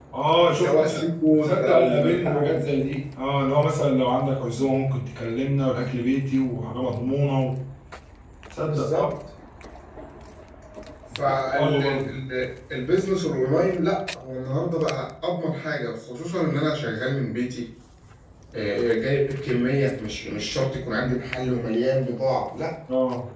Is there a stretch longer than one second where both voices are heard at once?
Yes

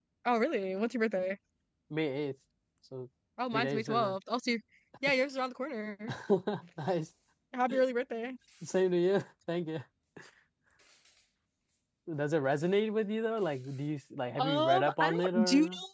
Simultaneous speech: Yes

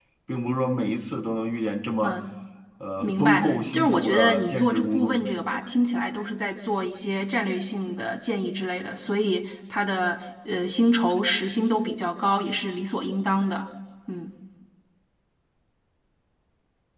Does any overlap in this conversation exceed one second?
Yes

